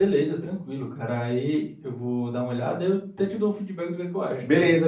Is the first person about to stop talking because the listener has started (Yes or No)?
Yes